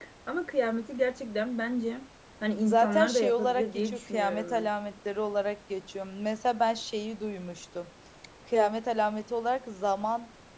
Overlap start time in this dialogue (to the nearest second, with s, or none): 3 s